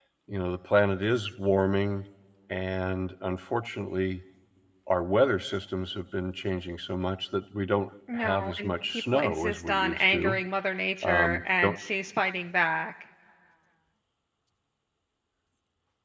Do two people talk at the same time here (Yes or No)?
Yes